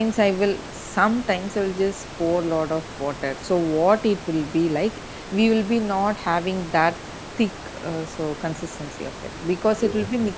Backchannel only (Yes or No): Yes